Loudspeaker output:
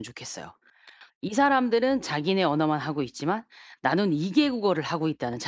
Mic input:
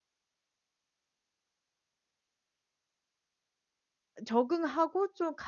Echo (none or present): none